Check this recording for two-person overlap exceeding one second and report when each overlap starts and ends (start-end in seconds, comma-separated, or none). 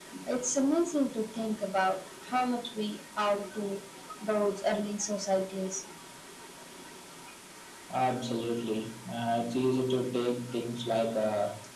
none